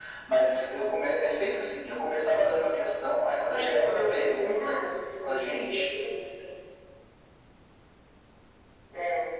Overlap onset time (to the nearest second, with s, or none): 3 s